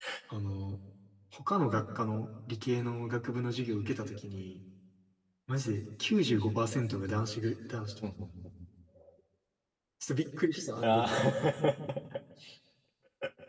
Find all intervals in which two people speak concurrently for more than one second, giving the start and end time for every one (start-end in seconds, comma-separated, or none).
none